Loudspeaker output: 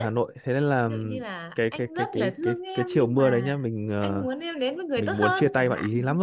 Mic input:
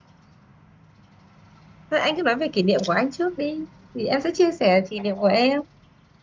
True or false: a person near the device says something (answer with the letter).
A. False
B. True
B